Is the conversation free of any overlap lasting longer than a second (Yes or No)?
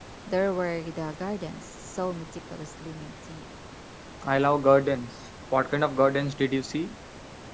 Yes